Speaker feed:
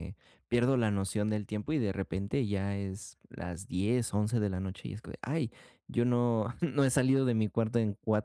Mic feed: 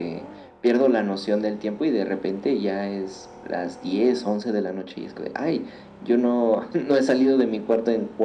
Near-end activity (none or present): none